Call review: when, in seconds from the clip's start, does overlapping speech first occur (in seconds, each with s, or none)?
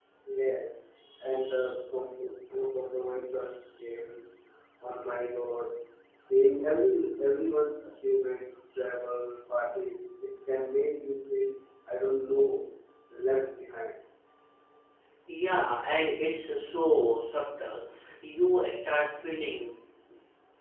none